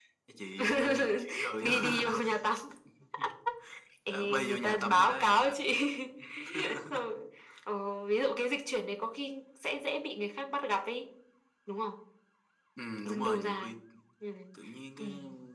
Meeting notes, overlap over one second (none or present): present